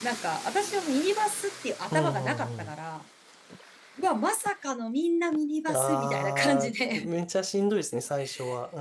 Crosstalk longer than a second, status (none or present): present